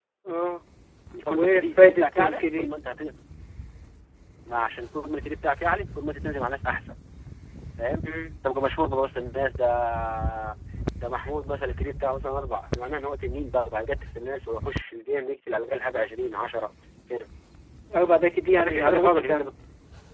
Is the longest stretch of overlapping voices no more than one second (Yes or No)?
No